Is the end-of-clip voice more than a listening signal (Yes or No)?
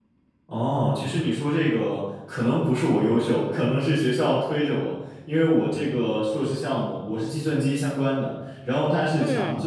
No